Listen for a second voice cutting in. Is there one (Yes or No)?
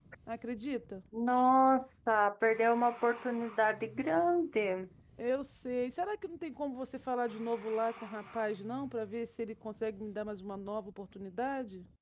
No